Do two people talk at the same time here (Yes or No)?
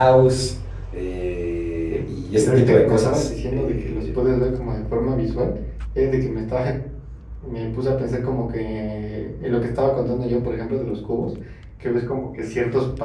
Yes